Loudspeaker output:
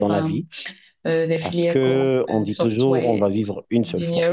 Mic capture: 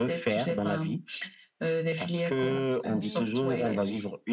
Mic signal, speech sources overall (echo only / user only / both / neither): both